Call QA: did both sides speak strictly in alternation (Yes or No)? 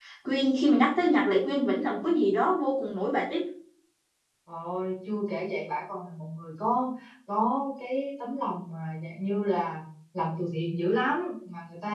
Yes